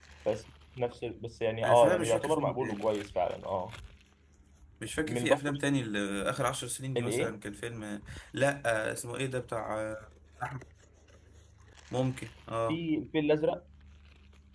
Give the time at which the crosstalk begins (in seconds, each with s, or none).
1.6 s